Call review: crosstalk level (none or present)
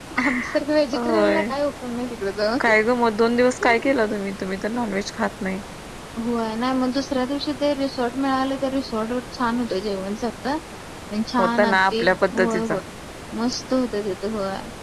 present